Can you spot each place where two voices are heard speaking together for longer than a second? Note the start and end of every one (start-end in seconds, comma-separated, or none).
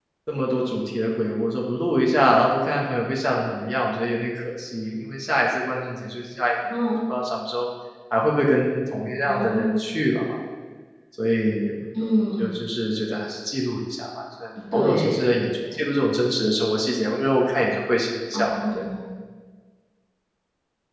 none